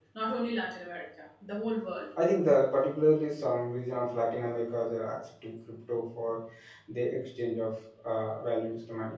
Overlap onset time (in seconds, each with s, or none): none